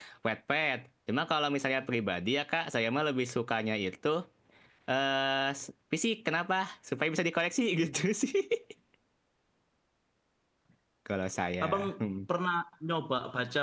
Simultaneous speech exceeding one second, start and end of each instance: none

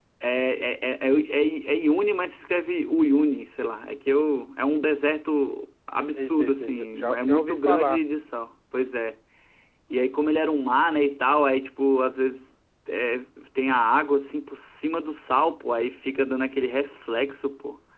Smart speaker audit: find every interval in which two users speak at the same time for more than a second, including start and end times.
6.1-8.0

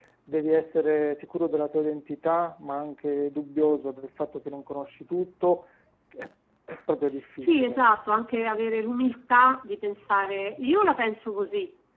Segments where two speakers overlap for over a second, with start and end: none

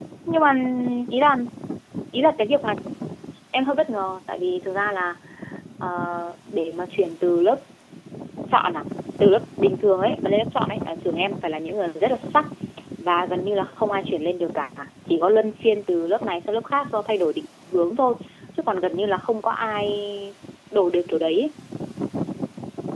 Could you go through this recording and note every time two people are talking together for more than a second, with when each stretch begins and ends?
none

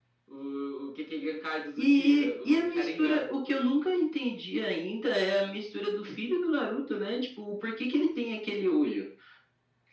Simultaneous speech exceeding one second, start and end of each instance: 1.8-3.3

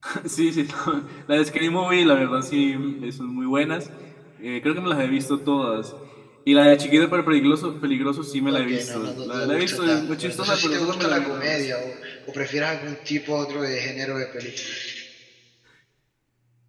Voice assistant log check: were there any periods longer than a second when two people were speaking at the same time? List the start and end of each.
8.6-11.7

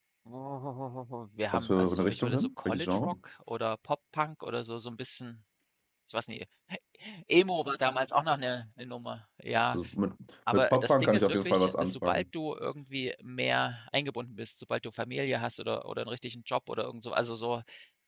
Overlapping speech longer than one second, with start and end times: 1.5-3.1, 10.5-12.2

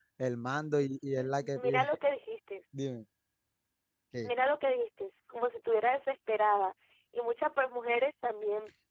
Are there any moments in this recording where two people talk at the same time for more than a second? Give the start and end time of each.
none

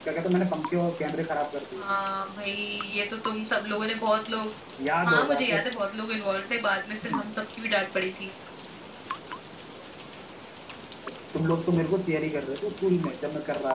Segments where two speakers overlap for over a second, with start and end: none

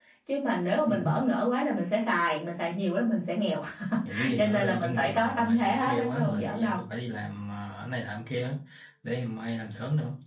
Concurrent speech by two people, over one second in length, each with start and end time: 4.4-6.8

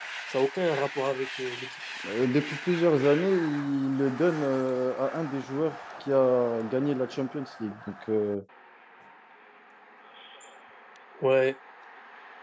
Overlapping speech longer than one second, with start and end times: none

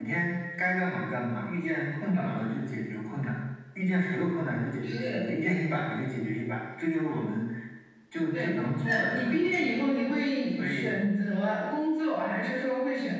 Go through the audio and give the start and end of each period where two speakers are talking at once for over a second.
8.3-9.8

